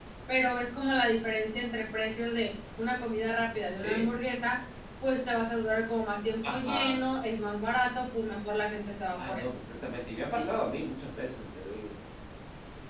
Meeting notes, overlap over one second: none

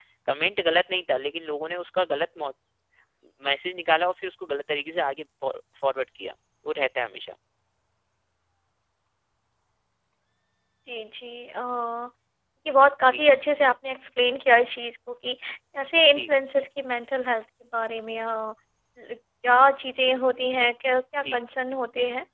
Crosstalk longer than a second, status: none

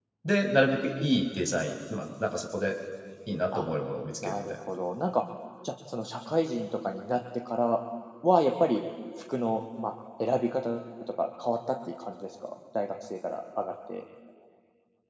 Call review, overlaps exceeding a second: none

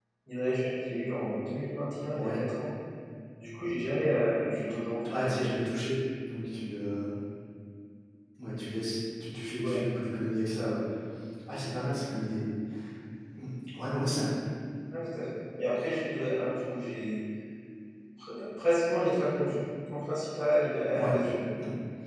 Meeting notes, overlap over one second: none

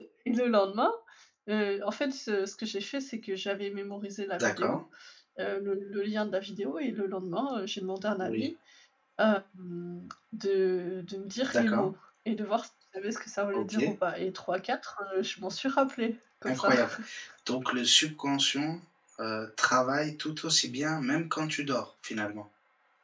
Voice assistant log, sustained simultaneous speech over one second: none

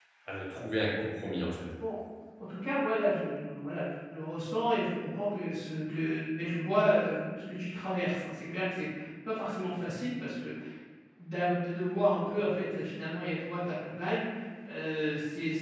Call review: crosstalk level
none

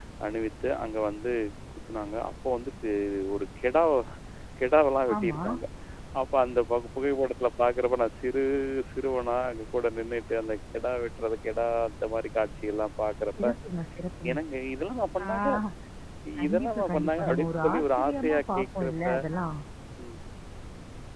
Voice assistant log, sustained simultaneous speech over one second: present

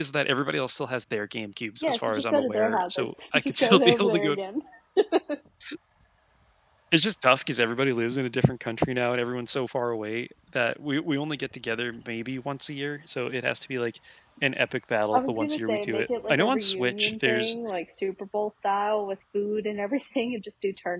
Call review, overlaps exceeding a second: present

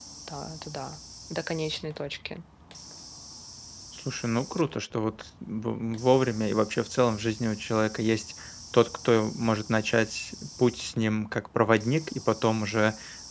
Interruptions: none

